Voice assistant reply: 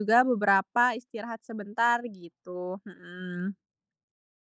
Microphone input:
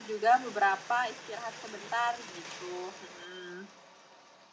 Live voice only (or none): none